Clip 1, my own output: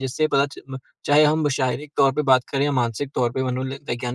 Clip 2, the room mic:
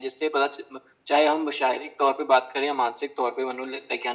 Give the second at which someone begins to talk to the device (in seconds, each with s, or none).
none